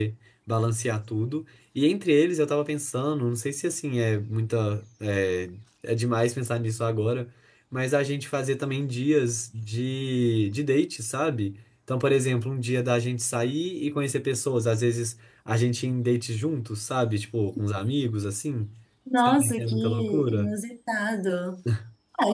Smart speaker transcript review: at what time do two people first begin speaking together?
19.2 s

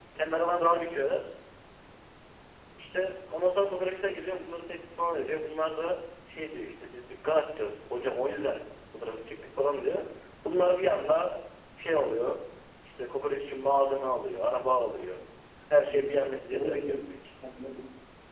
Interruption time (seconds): 15.8 s

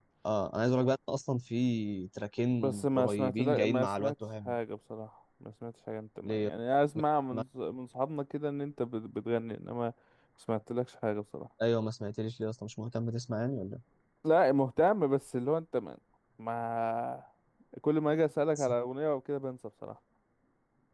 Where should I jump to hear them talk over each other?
2.6 s

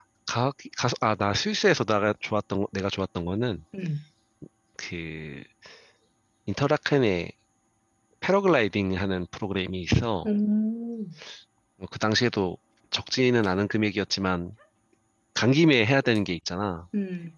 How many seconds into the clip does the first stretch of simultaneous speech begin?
none

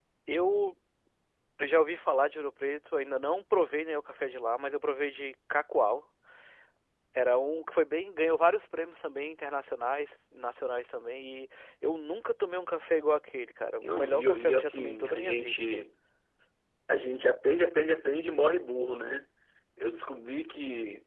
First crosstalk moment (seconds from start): 13.8 s

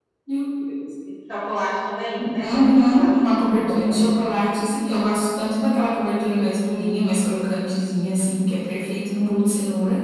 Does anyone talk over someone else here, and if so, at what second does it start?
2.2 s

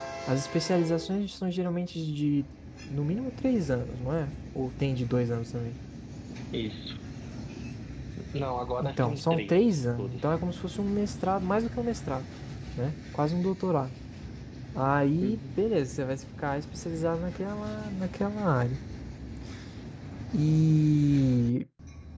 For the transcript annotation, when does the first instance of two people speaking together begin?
8.8 s

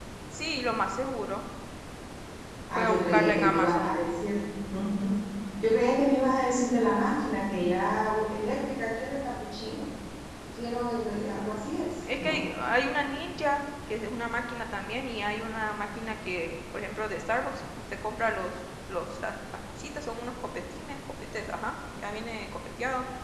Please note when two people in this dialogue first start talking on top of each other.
2.7 s

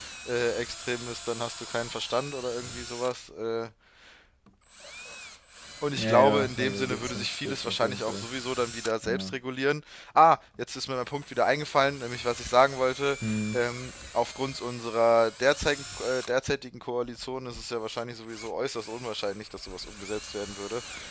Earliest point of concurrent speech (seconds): 6.0 s

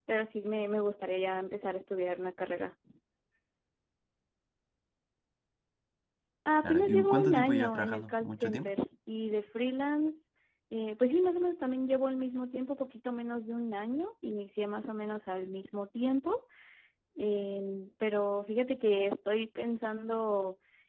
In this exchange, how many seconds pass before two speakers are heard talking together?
6.6 s

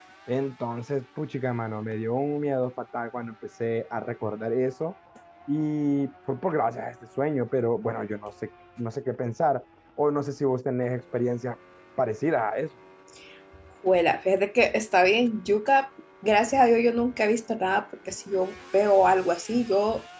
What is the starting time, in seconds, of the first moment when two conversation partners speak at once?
none

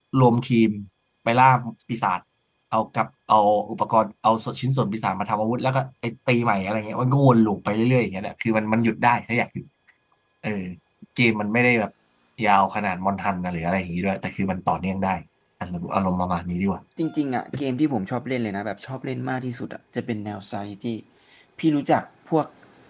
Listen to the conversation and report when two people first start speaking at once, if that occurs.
none

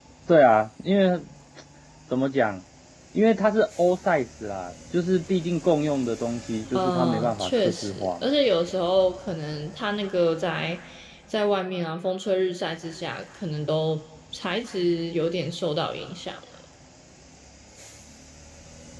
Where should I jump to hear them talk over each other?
6.7 s

